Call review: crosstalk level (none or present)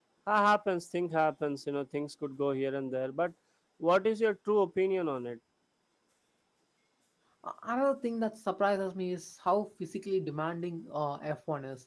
none